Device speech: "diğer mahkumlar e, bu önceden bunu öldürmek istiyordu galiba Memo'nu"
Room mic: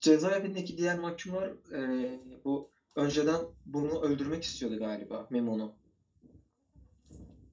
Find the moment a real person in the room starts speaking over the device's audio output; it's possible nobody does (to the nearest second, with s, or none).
none